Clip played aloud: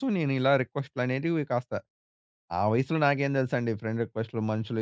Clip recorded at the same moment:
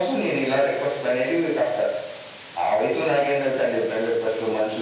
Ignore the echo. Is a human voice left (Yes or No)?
No